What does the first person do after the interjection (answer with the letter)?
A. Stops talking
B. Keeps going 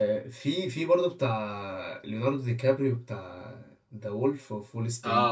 A